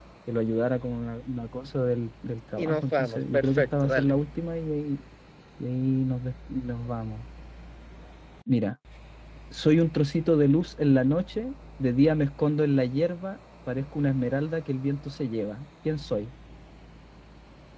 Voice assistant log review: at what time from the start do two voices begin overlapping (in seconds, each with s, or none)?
2.6 s